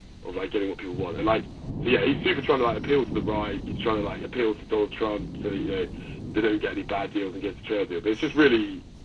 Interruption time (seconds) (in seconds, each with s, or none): none